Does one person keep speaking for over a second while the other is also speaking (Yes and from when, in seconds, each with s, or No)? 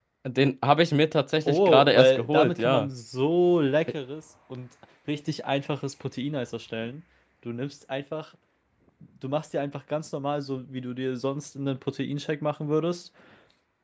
Yes, from 1.5 s